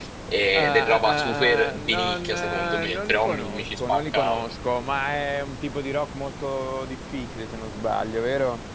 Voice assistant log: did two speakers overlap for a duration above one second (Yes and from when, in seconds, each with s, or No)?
Yes, from 0.5 s